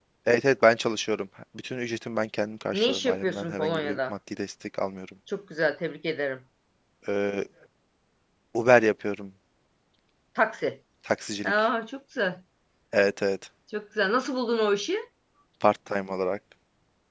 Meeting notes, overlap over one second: present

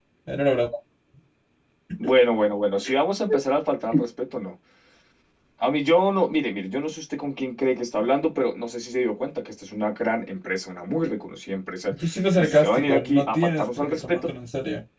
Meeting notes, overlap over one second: present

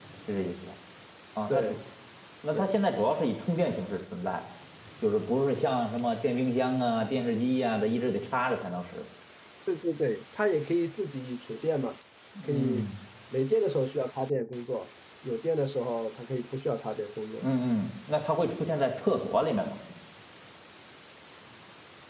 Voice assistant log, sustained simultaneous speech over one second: none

